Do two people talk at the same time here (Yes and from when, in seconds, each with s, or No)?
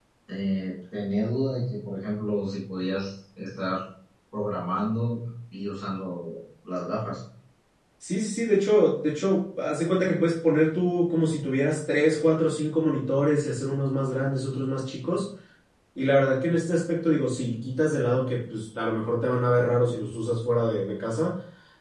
No